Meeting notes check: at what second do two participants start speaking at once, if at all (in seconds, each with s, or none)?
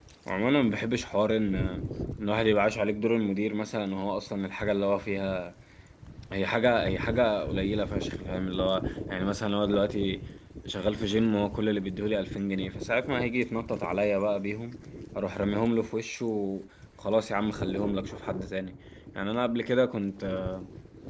none